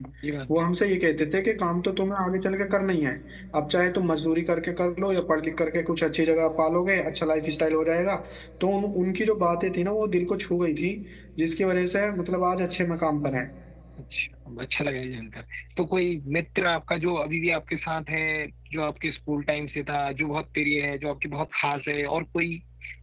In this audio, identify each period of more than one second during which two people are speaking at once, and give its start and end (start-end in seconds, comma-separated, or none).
none